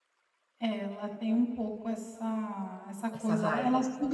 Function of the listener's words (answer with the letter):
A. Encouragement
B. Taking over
A